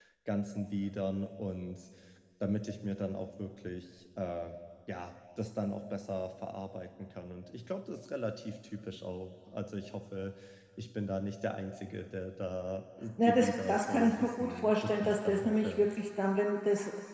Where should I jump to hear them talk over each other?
13.2 s

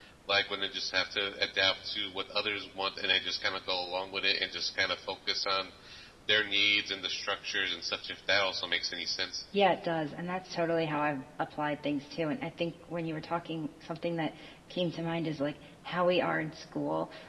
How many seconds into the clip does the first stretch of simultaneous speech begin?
none

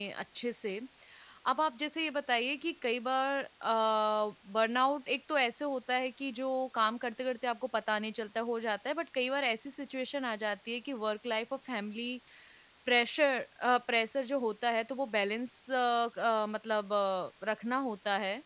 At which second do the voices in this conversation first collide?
none

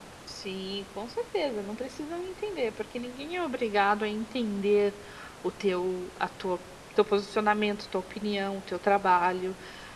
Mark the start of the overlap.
none

